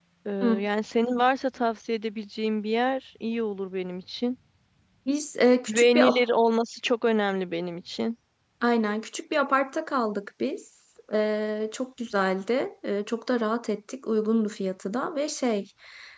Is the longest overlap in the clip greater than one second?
No

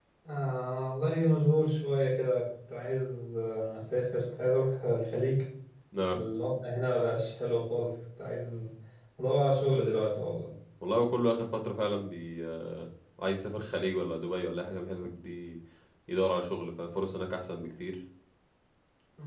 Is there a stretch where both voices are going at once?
No

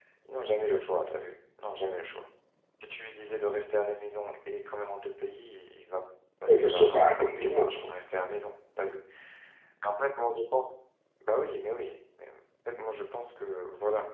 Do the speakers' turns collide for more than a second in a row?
Yes, from 6.5 s

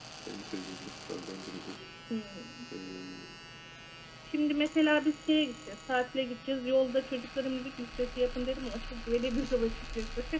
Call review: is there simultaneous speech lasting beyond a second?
No

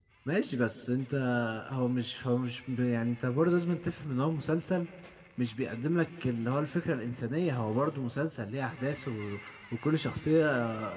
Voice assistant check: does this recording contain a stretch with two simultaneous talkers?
No

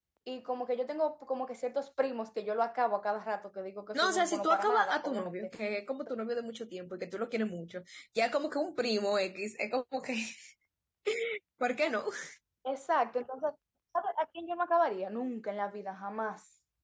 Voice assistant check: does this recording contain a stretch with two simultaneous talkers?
Yes, from 3.9 s

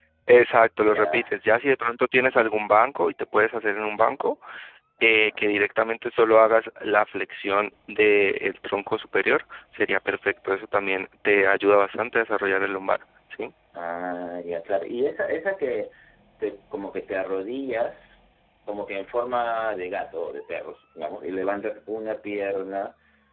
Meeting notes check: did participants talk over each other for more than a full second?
No

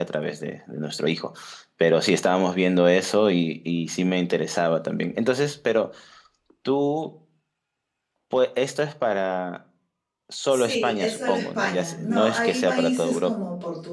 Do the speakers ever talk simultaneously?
Yes, from 10.5 s

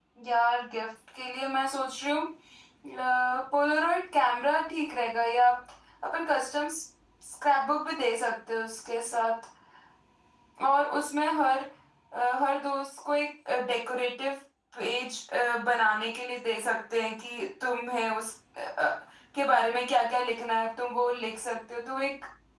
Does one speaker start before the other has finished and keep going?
No

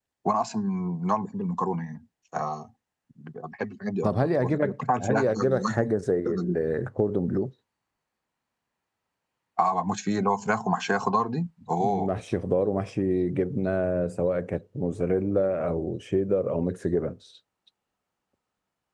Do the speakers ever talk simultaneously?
Yes, from 4.0 s

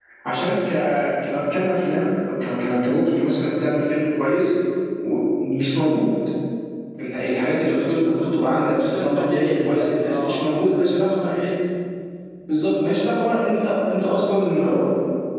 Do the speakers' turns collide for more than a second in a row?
Yes, from 8.9 s

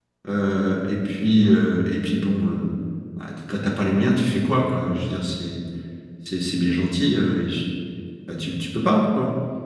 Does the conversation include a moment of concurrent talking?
No

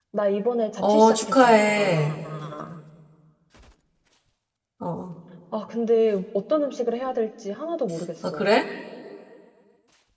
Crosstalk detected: Yes, from 0.8 s

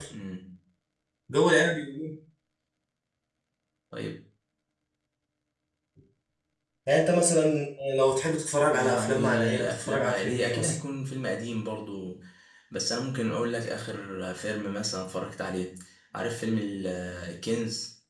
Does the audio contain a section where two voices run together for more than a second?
Yes, from 8.7 s

